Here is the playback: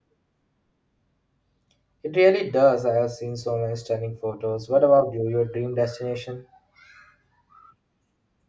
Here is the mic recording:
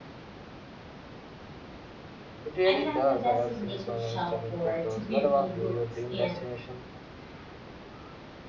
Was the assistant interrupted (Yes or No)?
Yes